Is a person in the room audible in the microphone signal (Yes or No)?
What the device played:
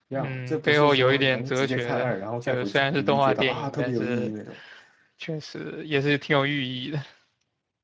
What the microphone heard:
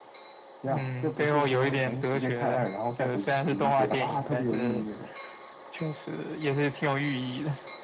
No